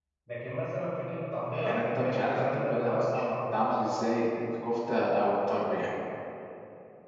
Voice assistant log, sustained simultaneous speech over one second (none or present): present